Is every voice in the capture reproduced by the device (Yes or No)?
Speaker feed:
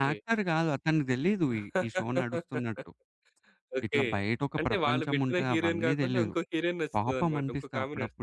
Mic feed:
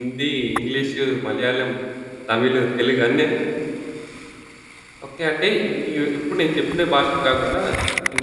No